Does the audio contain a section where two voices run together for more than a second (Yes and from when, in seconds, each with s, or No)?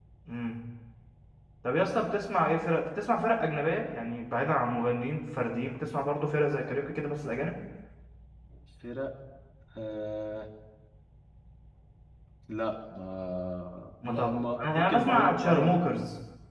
Yes, from 14.0 s